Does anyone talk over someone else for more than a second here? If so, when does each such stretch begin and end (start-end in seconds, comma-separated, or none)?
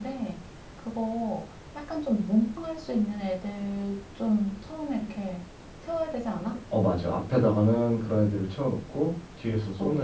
none